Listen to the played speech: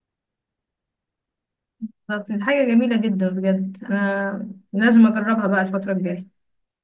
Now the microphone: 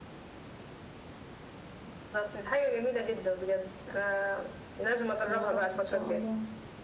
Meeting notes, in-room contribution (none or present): present